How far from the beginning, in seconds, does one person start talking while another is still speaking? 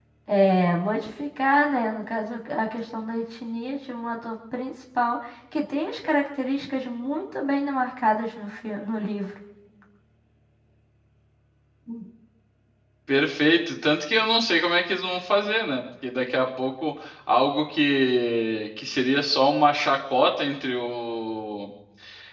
none

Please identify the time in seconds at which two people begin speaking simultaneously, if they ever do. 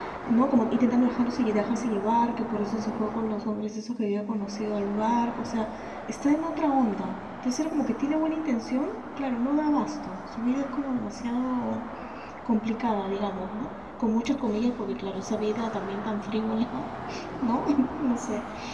none

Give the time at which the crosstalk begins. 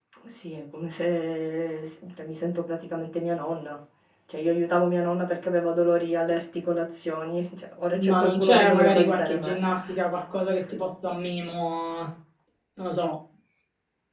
8.0 s

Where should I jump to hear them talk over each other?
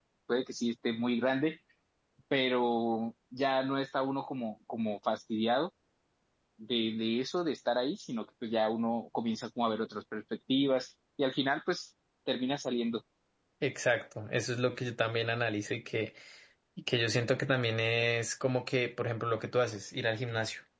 none

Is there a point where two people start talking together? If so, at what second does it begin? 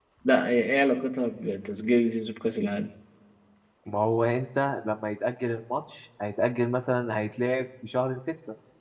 none

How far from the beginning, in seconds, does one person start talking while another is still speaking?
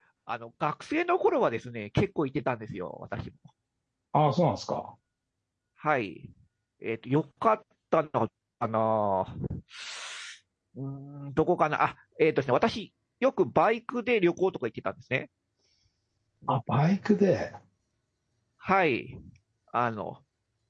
none

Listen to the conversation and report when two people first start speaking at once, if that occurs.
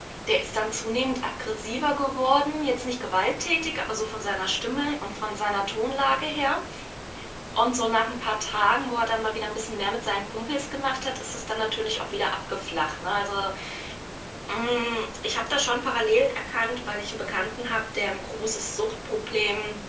none

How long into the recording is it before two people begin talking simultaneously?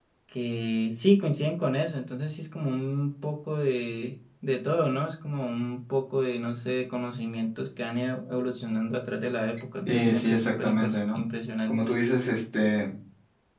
9.9 s

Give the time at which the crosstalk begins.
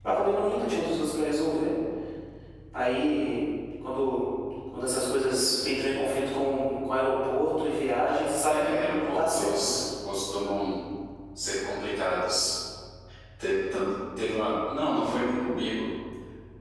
8.5 s

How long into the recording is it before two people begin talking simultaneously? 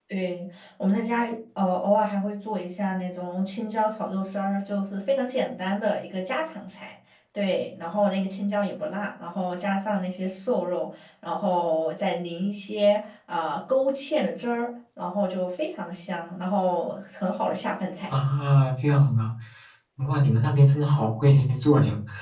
none

